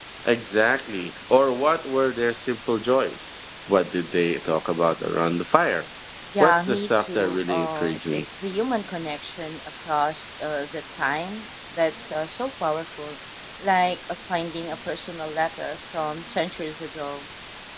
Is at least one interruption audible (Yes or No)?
Yes